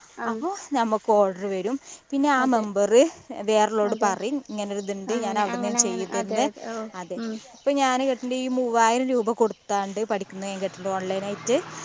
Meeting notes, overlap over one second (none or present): present